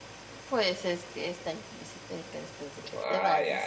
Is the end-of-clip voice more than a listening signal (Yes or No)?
Yes